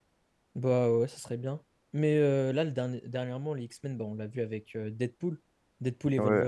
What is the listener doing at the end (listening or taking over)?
taking over